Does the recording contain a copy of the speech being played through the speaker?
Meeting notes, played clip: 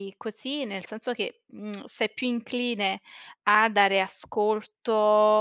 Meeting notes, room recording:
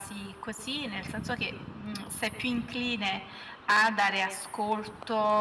Yes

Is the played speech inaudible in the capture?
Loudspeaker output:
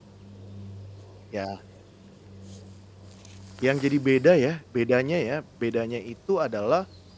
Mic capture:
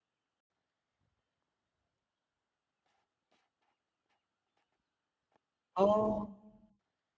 Yes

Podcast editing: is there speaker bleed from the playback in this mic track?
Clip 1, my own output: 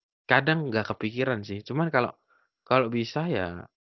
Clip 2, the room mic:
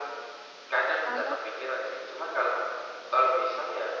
Yes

